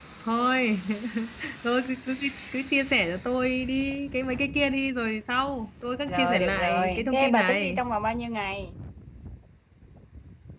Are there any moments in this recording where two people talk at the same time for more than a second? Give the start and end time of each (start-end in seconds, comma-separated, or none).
6.1-7.8